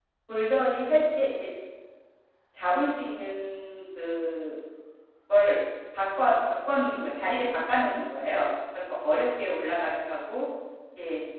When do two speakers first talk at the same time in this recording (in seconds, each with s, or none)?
none